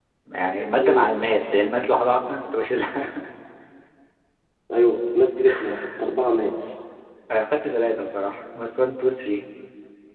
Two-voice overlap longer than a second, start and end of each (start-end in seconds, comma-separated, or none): none